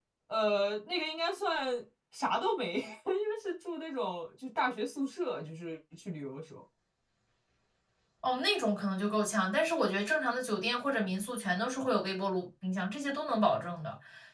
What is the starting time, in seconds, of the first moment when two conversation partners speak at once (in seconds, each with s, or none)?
none